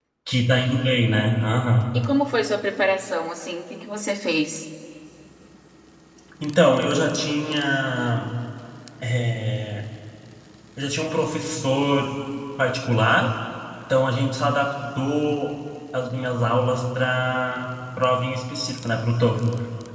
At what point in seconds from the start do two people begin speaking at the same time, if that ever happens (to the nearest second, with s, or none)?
none